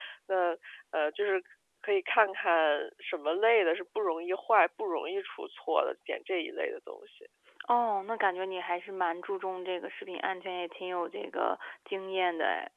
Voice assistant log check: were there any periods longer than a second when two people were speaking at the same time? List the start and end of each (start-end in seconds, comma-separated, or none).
none